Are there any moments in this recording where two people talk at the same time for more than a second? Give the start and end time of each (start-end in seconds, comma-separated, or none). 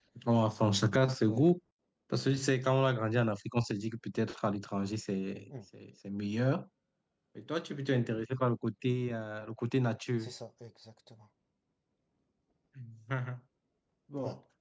none